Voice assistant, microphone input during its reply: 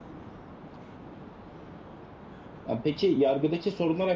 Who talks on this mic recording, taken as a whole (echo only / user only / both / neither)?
user only